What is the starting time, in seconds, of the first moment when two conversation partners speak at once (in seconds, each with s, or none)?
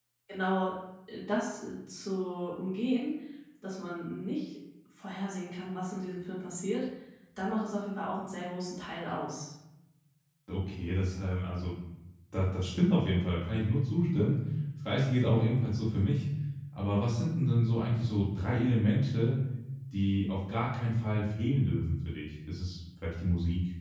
none